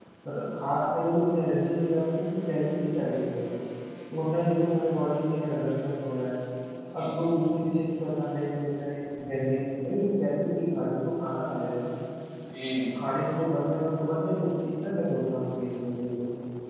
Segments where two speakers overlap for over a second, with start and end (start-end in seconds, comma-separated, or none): none